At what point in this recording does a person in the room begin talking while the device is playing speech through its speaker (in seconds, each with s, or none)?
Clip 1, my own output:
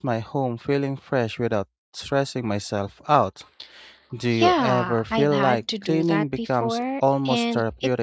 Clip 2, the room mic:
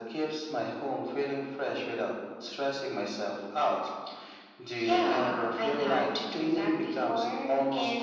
none